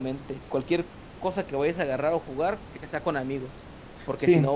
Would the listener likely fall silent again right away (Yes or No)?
Yes